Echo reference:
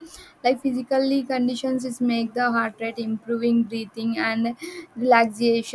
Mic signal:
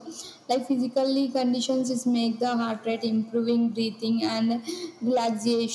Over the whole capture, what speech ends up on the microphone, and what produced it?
echo only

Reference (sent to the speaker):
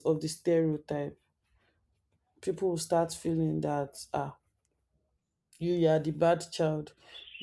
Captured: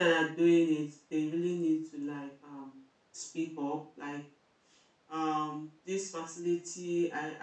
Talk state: user only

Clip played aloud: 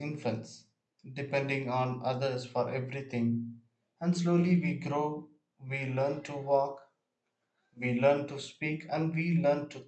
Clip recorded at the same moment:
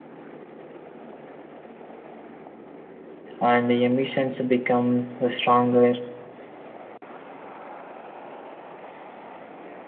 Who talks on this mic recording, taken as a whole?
user only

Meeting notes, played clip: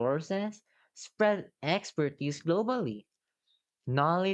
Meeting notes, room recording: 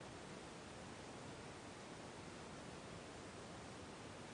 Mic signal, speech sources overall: neither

